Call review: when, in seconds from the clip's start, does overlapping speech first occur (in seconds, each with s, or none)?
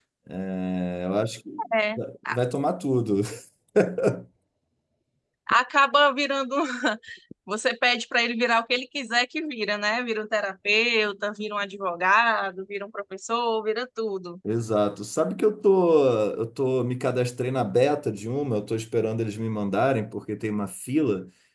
none